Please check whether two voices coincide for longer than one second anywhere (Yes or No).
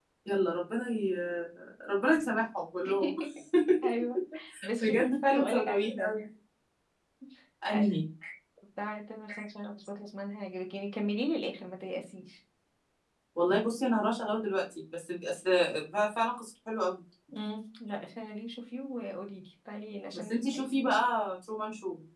Yes